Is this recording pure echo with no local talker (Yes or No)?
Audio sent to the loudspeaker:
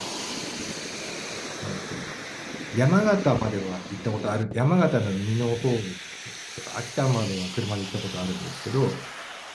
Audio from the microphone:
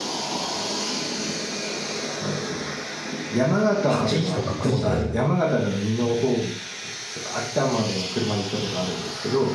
No